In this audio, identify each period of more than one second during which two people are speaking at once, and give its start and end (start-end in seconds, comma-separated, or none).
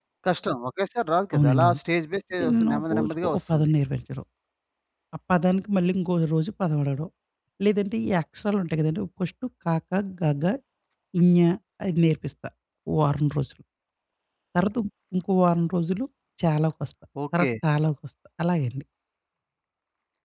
2.4-3.7